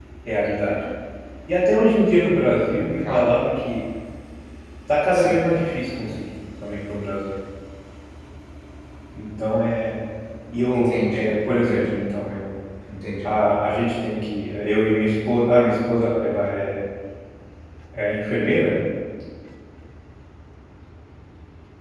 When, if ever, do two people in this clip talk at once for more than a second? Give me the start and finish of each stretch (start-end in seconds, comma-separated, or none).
10.7-12.0